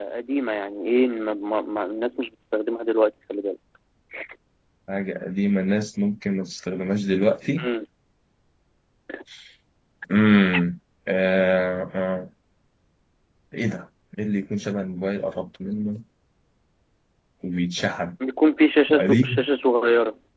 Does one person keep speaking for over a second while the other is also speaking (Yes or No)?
No